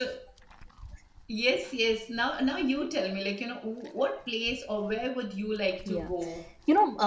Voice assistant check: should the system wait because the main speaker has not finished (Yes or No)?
No